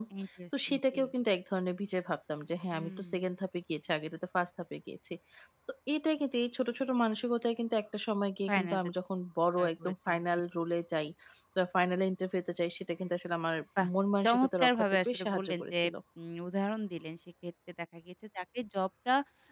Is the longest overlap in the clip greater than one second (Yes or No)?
Yes